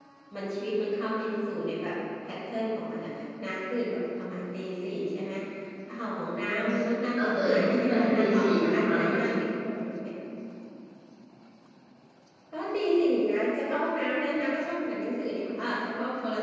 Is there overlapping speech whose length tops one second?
Yes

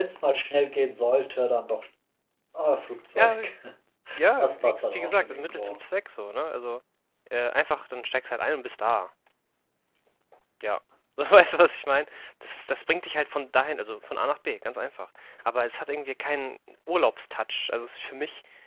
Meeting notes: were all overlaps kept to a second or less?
No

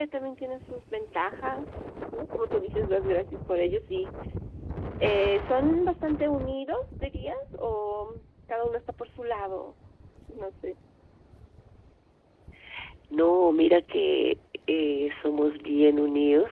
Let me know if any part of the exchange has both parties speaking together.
No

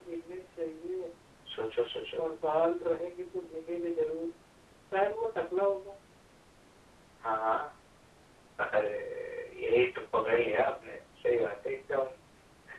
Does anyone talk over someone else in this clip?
No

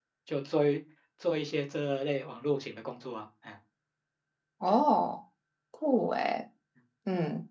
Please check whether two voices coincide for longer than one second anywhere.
No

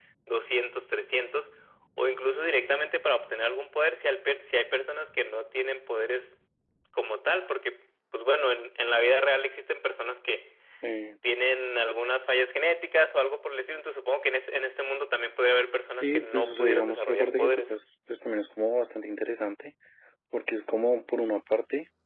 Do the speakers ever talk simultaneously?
Yes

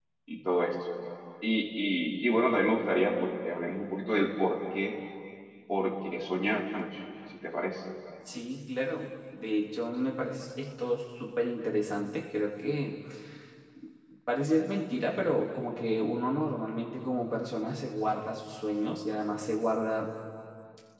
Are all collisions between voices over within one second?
Yes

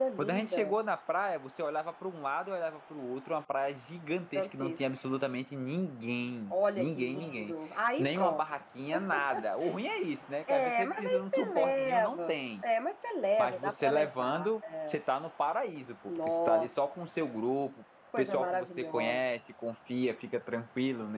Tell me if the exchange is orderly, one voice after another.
No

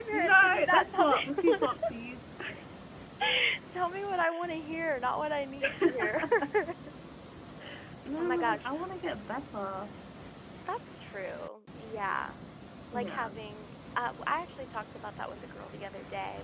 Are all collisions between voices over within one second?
No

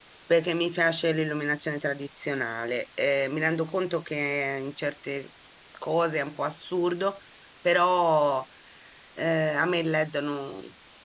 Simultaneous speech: No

